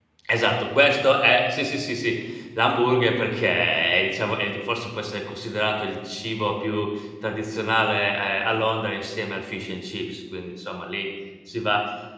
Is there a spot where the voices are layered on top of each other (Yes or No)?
No